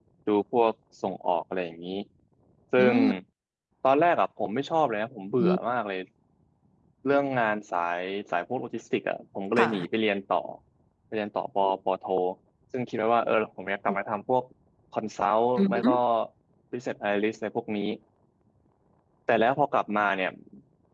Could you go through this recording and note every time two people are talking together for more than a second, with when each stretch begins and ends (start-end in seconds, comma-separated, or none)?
none